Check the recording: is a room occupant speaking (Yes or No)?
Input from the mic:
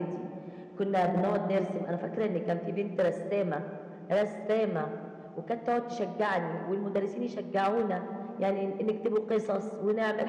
No